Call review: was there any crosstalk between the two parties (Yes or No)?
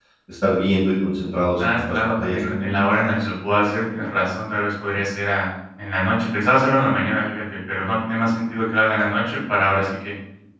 Yes